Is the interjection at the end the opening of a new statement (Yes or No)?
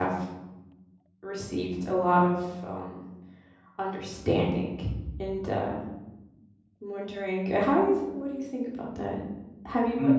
No